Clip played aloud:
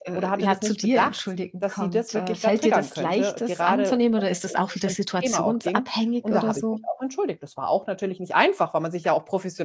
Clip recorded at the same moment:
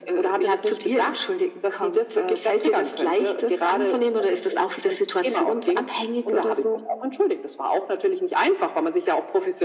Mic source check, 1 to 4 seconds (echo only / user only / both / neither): echo only